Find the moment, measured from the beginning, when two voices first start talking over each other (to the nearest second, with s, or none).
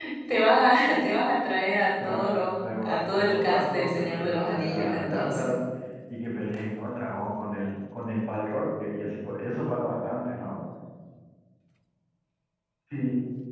2 s